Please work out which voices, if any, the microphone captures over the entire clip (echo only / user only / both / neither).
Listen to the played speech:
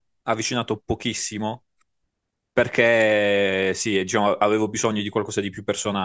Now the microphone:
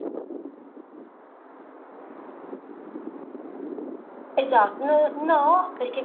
user only